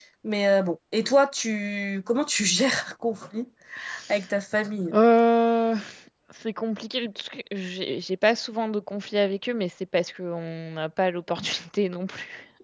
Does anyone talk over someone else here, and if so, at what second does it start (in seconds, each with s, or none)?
none